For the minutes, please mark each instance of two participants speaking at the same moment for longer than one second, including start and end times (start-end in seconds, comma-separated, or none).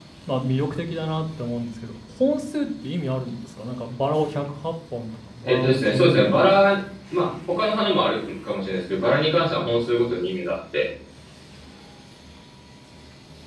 5.4-6.6